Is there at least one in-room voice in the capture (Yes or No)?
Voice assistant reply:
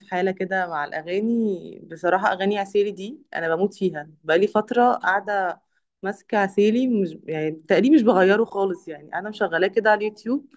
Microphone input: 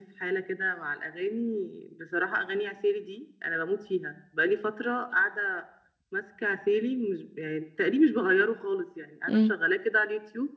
Yes